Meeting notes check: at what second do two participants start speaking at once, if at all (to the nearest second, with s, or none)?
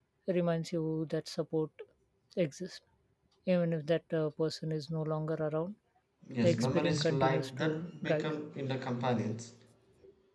6 s